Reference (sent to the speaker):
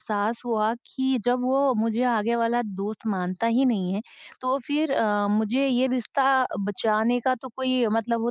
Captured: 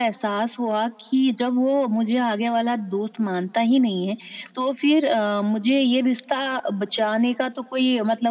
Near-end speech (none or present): none